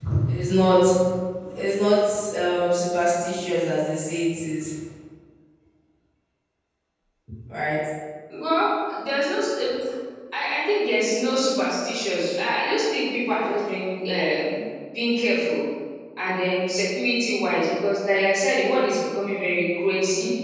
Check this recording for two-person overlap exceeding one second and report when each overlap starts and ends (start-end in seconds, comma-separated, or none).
none